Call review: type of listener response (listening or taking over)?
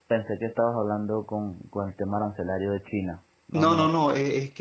taking over